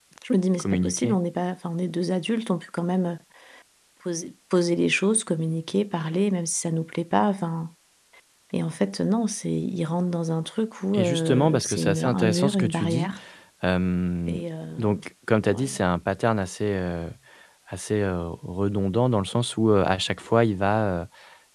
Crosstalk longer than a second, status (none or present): present